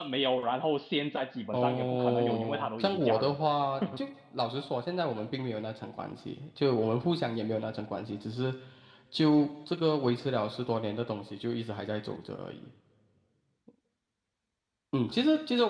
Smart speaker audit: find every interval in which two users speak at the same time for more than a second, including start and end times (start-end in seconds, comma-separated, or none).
1.5-3.4